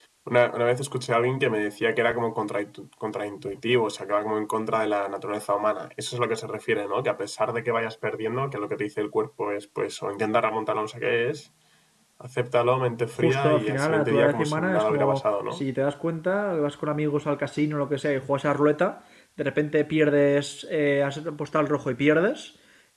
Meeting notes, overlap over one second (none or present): present